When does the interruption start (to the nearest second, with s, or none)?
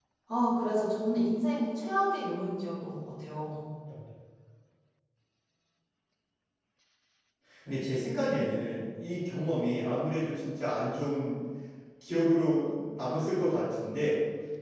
none